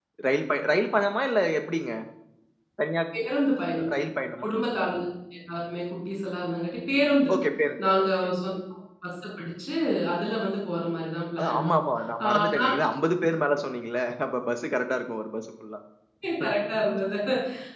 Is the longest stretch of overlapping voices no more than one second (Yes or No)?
Yes